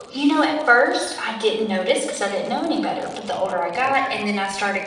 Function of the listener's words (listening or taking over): listening